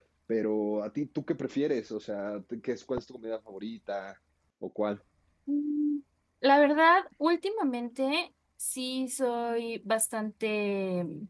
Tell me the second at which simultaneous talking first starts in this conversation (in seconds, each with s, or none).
none